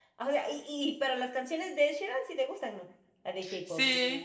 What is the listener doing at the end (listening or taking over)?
taking over